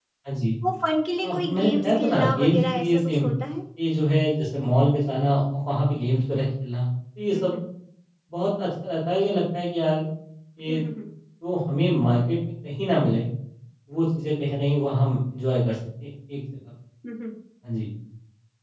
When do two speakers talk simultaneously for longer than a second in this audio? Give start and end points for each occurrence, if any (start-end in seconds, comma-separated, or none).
1.2-3.3